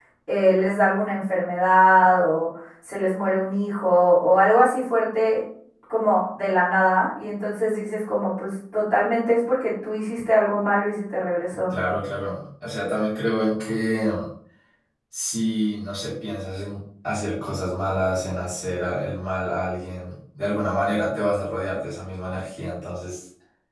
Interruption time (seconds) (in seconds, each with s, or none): none